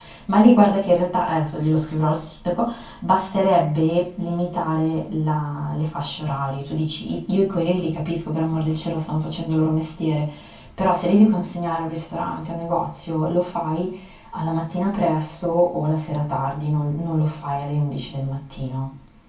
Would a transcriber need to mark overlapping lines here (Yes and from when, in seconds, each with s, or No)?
No